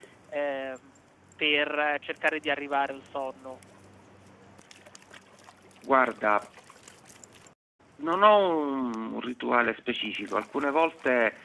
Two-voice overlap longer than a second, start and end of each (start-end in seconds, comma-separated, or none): none